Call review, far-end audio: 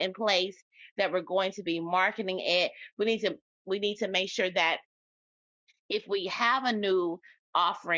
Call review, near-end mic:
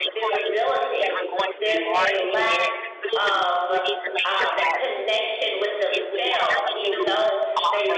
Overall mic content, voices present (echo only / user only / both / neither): both